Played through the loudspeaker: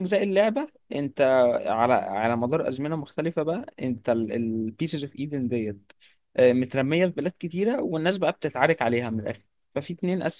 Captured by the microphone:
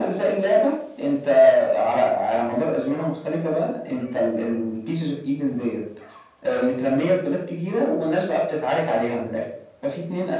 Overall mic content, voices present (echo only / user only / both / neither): echo only